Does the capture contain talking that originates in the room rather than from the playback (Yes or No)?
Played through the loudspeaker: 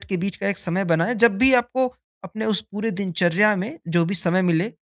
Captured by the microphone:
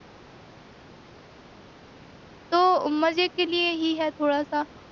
Yes